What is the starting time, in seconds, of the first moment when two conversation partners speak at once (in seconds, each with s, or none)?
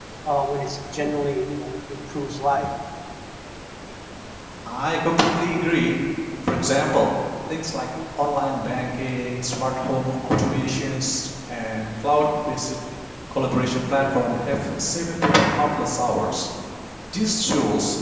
none